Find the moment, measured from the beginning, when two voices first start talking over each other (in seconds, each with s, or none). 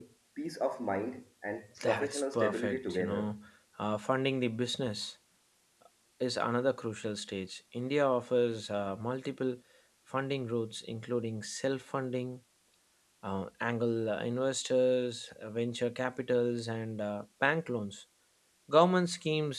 1.8 s